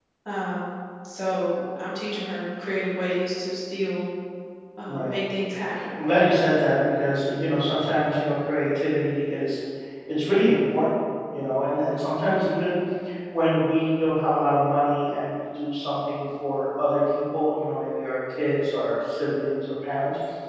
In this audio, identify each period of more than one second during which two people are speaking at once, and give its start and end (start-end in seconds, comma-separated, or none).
none